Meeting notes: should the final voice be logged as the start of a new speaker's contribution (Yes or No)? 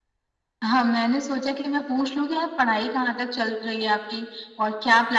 No